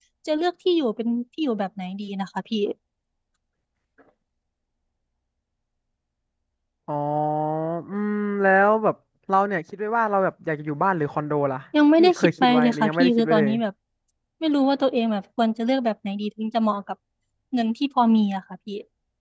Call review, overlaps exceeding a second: present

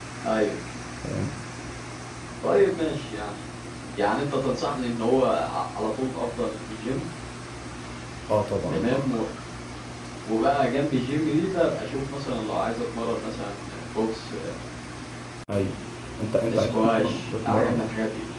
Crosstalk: present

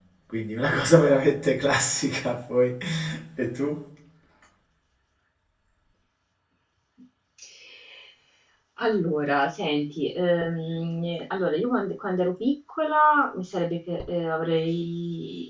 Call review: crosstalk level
none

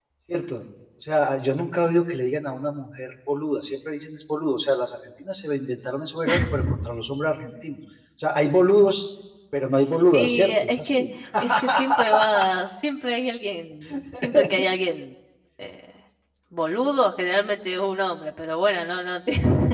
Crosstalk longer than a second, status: present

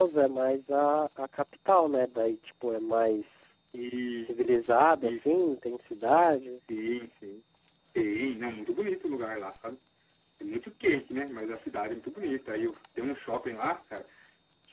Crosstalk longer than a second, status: none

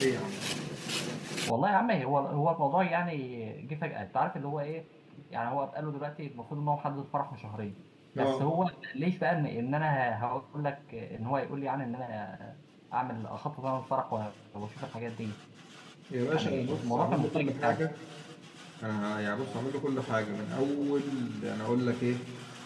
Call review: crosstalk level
present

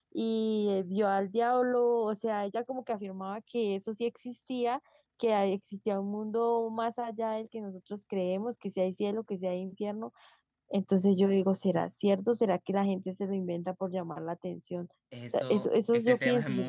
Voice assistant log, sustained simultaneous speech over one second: present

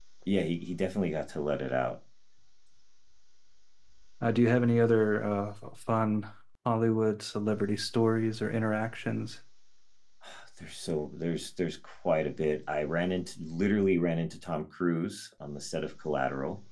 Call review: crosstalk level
none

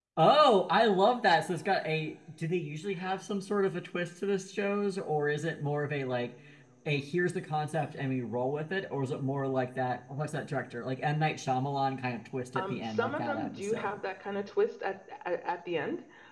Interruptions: present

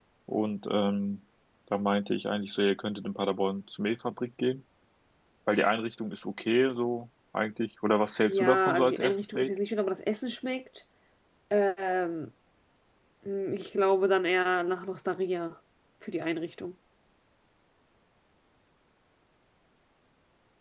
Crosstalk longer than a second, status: present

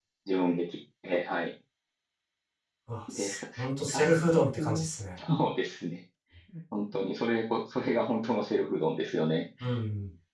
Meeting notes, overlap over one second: none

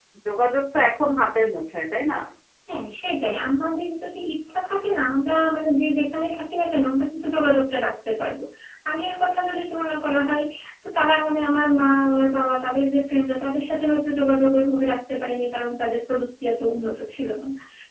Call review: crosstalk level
none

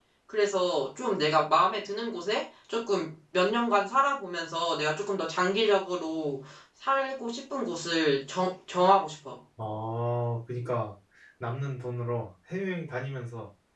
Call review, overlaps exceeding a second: none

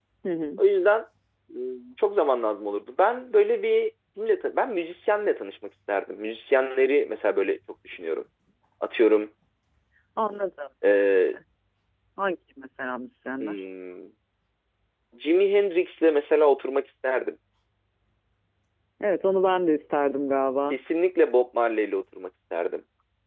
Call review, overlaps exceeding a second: none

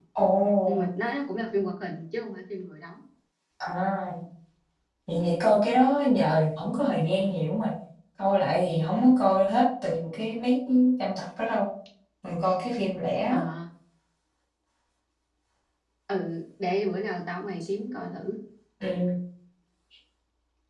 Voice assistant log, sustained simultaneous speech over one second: none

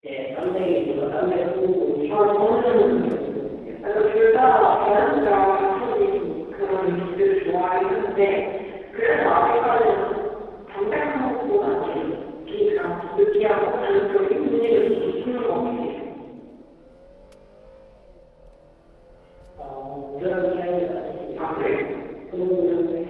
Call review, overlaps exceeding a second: present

